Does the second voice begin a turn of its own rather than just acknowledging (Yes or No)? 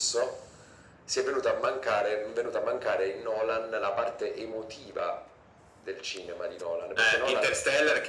Yes